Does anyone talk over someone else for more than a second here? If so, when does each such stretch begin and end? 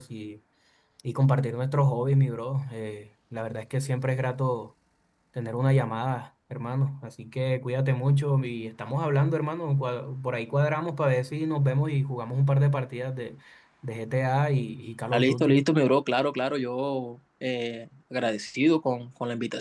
none

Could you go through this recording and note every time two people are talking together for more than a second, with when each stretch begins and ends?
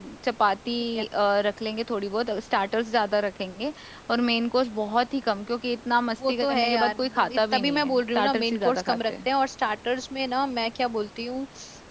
6.3-9.1

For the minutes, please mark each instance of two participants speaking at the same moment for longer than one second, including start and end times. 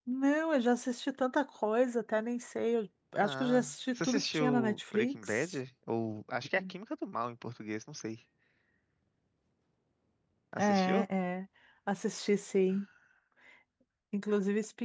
3.2-5.5

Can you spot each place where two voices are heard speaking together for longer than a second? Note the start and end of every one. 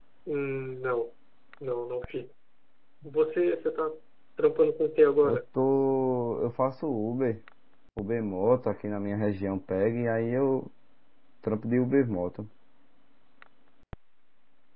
none

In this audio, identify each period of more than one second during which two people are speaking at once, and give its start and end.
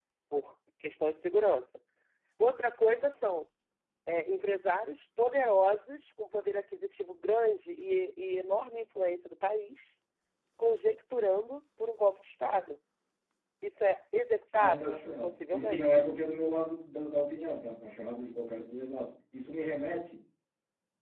14.6-16.1

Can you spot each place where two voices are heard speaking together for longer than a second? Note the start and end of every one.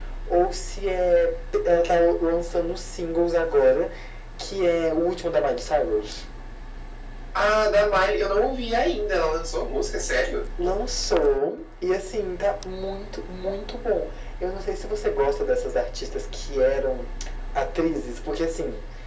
none

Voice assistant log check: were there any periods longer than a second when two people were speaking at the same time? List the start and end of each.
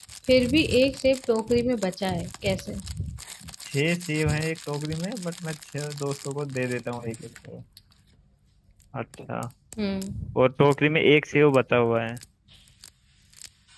none

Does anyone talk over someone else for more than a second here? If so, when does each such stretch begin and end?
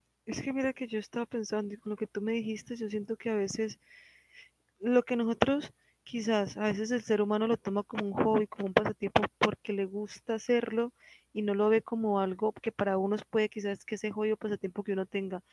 none

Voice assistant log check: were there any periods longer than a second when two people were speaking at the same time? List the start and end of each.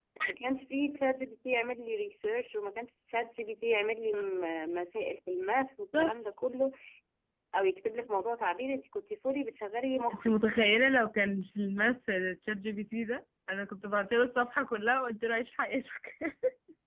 none

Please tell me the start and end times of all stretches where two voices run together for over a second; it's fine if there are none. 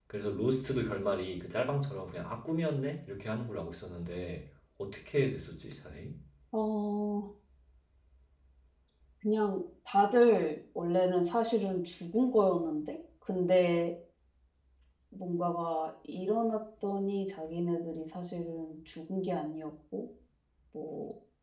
none

